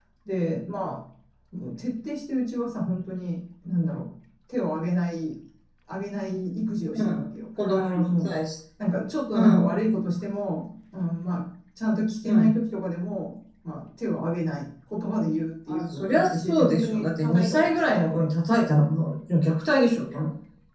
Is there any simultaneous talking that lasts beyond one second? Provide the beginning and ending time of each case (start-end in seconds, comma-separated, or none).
15.7-18.2